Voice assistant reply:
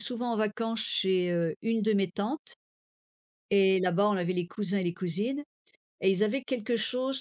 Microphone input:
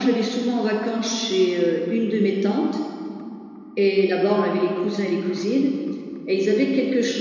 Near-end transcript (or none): none